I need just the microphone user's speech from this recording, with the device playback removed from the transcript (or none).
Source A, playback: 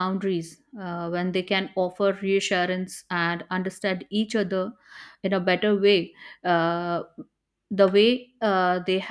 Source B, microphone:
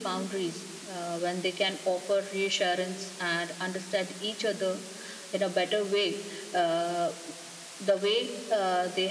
none